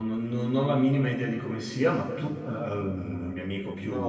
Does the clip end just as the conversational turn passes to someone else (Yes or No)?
Yes